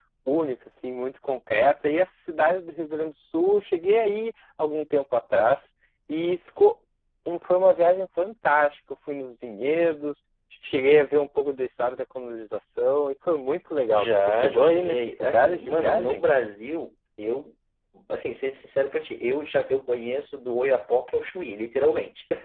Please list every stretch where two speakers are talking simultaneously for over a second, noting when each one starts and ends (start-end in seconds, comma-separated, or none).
13.9-16.2